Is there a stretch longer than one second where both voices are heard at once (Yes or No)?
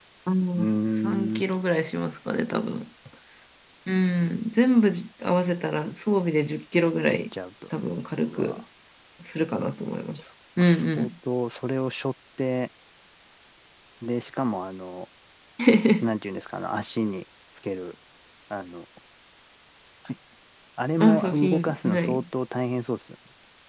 Yes